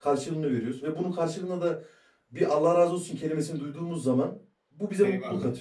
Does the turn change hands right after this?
Yes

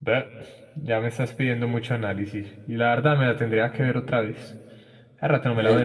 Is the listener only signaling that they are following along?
No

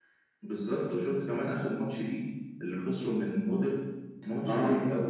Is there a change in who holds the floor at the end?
No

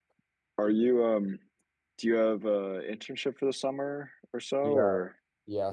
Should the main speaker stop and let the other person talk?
Yes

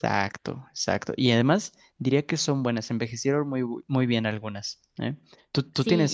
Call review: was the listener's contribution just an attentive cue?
No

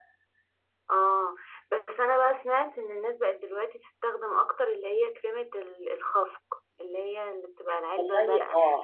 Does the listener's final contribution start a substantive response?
Yes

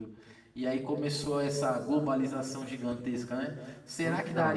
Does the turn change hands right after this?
No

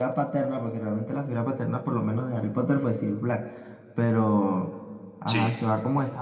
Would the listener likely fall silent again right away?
Yes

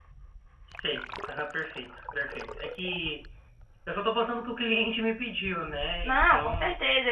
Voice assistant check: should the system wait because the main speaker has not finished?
No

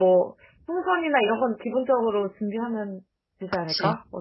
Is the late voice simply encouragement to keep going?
No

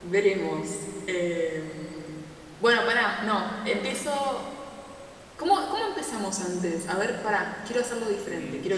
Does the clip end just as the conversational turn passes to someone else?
Yes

